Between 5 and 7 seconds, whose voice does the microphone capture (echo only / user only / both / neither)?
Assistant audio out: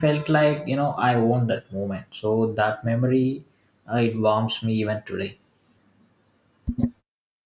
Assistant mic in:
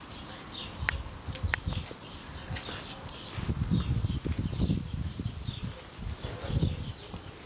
neither